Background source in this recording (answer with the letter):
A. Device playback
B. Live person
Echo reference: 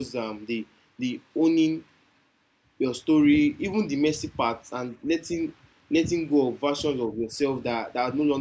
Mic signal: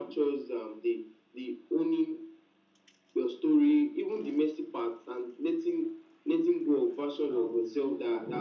B